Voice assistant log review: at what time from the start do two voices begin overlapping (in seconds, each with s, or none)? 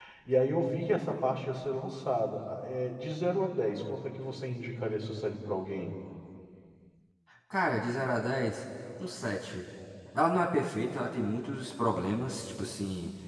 none